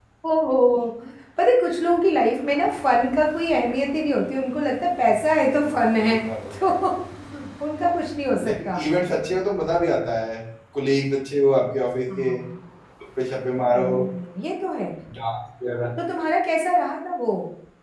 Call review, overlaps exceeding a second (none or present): none